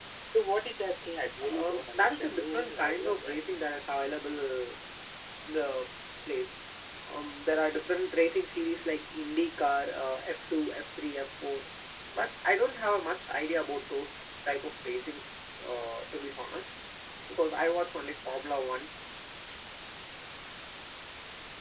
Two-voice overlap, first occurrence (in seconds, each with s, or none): 1.4 s